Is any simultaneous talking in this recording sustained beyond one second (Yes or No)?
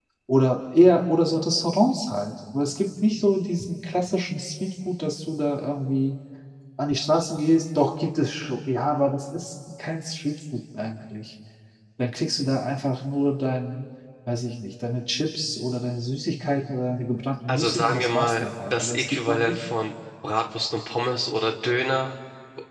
Yes